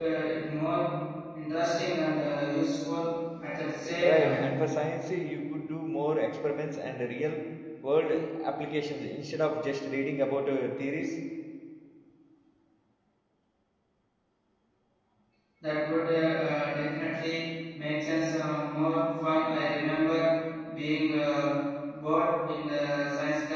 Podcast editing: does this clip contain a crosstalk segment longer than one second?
No

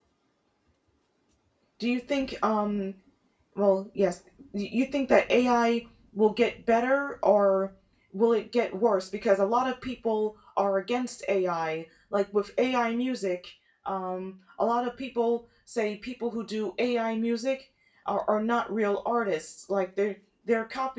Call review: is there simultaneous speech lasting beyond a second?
No

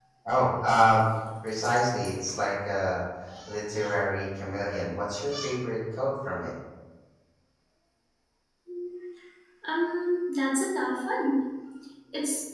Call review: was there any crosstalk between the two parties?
No

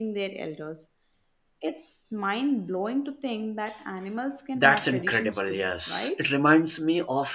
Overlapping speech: Yes, from 4.5 s

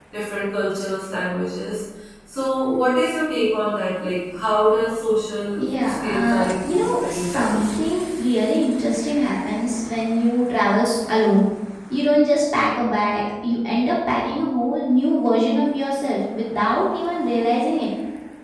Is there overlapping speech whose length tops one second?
Yes, from 5.5 s

